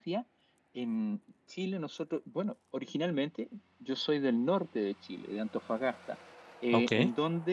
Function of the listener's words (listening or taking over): listening